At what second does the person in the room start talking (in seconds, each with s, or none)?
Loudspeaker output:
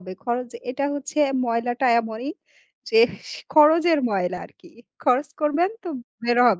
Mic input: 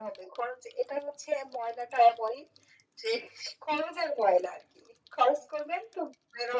none